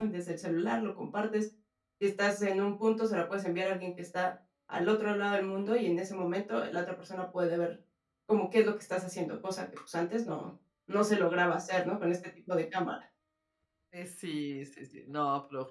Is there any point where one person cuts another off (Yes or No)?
No